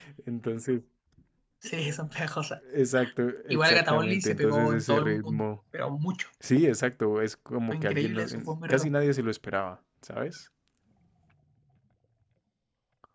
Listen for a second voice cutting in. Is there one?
Yes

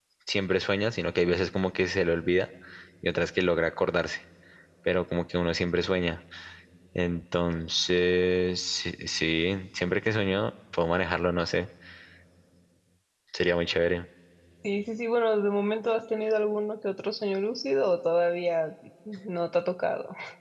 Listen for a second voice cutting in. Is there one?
No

